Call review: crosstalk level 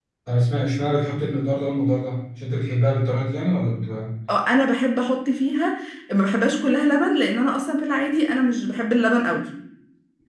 none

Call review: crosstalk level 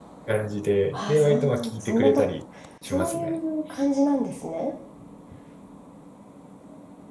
present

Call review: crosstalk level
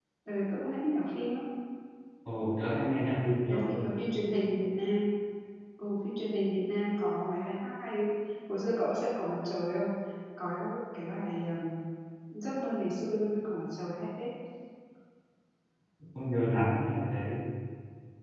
none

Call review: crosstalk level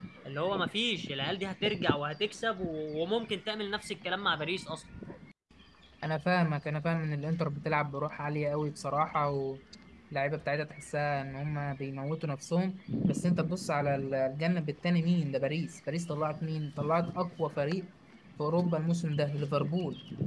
none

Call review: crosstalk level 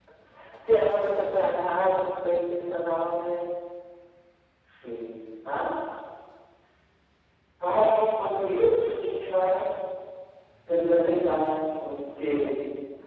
none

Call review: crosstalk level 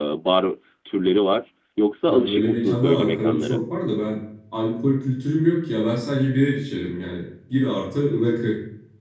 present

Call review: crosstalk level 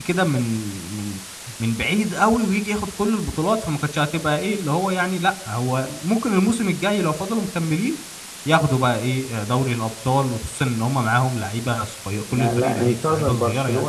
present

